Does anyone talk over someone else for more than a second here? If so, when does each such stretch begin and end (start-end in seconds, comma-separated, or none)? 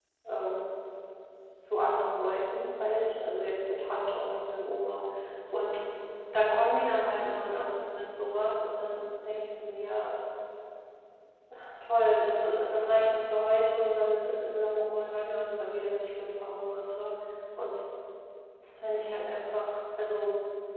none